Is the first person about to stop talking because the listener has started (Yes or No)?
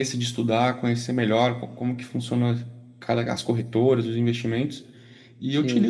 No